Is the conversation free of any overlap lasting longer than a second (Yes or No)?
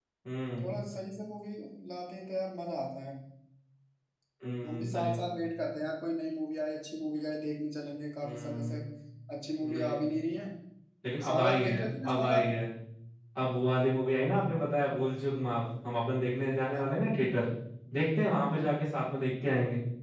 No